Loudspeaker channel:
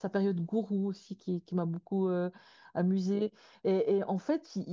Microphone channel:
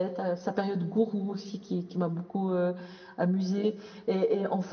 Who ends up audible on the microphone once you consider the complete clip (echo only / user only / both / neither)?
echo only